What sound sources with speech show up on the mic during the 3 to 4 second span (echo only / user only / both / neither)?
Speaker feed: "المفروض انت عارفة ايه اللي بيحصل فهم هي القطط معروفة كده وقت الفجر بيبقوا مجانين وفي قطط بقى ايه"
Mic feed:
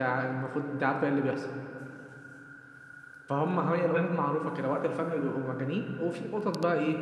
echo only